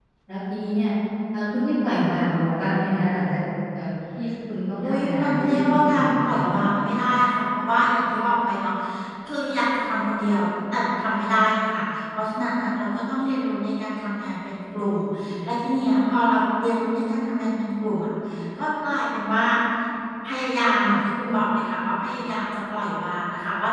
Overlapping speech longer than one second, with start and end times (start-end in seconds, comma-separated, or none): 4.8-6.5